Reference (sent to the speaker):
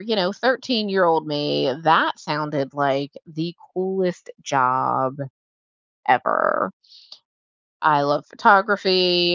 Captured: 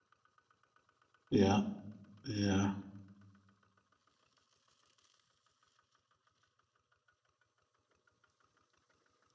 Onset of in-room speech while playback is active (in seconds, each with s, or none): 1.3 s